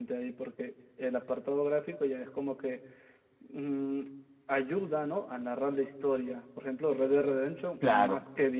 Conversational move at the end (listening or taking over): listening